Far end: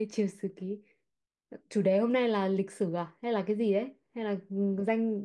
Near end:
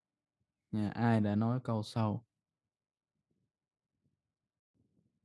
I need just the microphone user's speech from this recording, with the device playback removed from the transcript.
nha ai đã nói câu sau

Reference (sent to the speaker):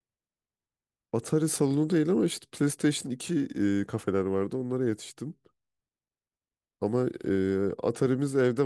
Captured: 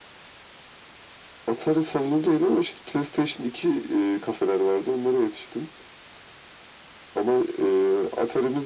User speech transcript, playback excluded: none

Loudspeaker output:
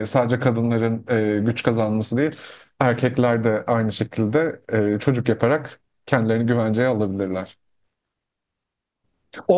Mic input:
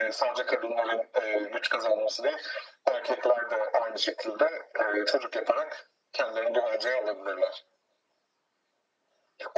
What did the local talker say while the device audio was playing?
none

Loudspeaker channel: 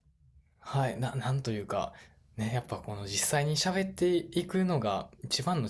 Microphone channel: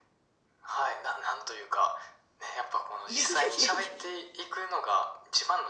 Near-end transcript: いやいやいやいや、

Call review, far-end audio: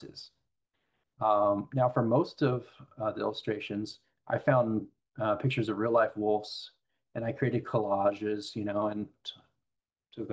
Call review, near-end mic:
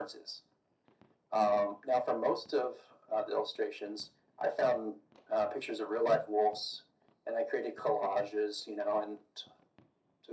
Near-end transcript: none

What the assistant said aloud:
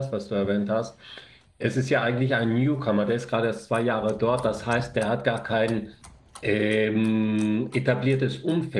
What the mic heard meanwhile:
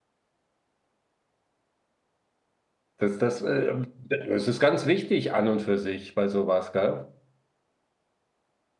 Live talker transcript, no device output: Das, das, äh, das ist ganz wichtig an und für sich bei sowas, gell?

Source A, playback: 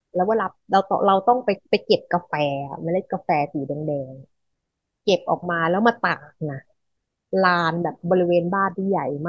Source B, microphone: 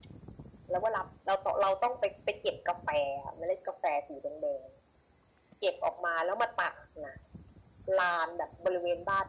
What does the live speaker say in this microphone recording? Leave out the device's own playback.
none

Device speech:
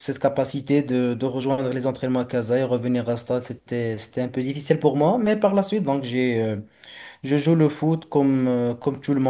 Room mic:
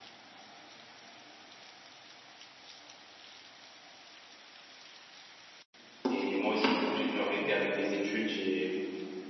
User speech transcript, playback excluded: Et moi aussi du coup j'ai dû arrêter avec les études, j'ai

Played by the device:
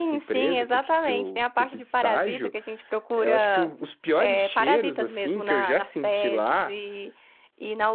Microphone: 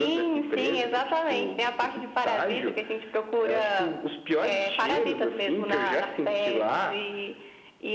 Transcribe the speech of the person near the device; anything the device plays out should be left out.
none

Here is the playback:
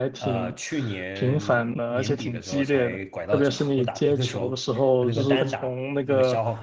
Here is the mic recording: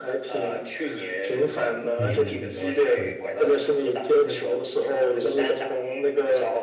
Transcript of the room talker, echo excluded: 嗯哼嗯哼，是，

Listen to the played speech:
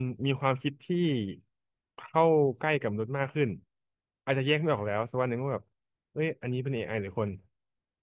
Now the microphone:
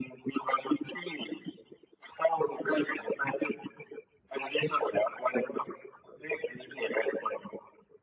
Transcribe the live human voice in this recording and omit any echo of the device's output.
none

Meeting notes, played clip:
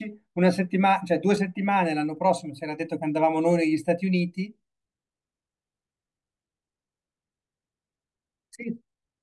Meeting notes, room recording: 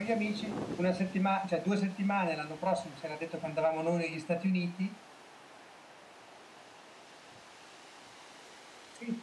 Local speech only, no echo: none

